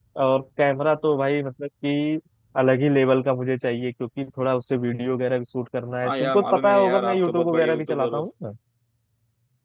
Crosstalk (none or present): present